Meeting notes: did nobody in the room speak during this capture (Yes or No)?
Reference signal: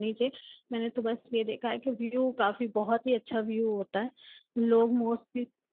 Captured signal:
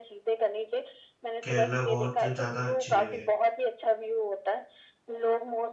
No